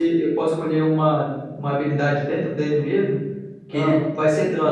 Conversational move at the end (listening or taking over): listening